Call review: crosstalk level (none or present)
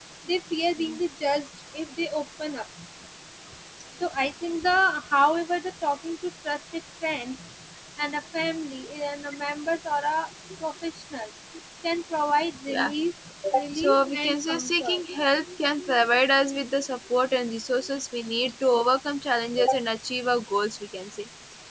present